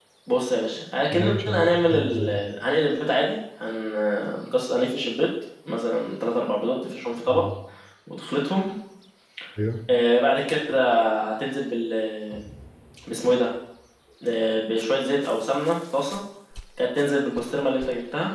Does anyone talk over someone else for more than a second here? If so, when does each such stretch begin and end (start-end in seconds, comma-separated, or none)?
1.1-2.4